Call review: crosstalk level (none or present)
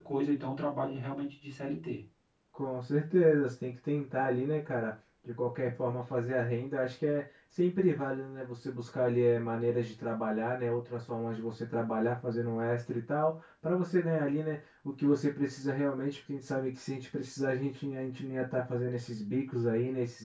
none